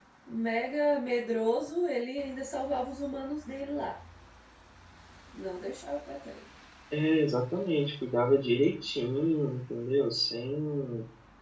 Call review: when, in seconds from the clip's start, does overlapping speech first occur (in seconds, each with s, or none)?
none